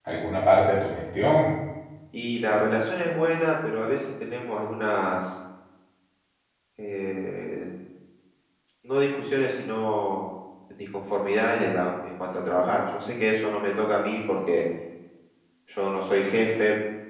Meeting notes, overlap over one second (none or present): none